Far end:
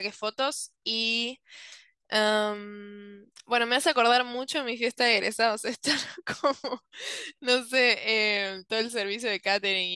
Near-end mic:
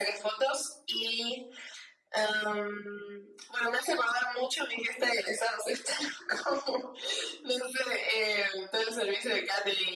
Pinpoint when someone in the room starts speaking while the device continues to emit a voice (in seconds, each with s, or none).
none